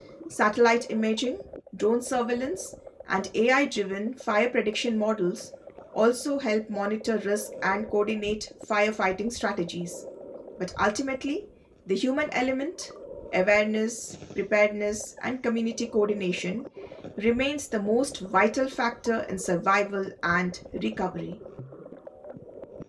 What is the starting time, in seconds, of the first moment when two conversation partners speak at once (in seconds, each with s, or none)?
none